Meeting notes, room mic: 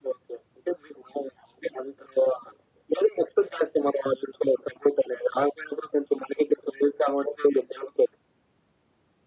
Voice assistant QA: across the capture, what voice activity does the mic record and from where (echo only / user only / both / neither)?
echo only